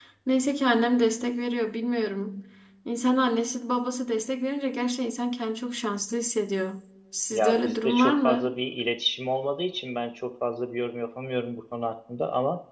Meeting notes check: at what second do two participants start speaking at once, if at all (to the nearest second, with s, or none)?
7 s